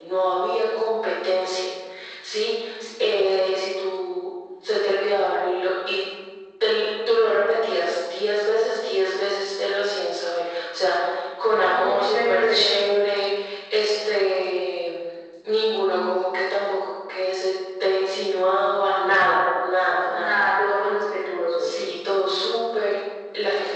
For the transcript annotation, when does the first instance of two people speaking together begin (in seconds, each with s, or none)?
11.6 s